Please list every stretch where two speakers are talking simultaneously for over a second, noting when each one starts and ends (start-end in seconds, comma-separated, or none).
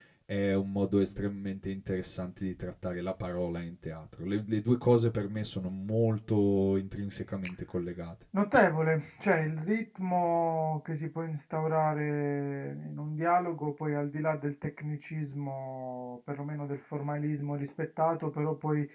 none